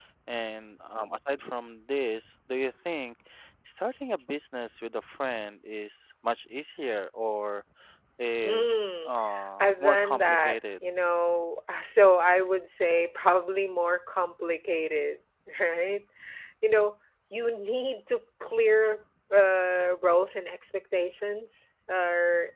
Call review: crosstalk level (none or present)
present